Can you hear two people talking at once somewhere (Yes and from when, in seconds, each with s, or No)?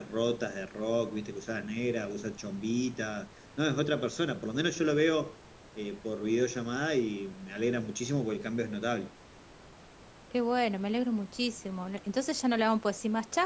No